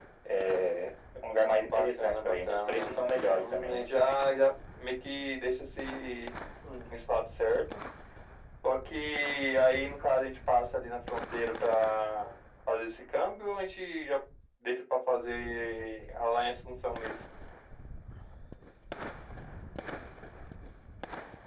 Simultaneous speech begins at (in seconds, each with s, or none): 1.6 s